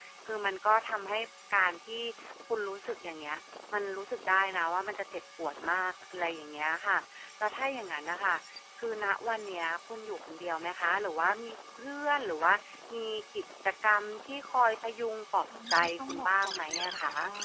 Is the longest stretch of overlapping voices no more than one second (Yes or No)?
No